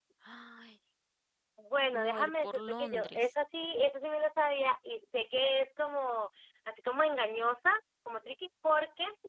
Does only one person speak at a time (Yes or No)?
No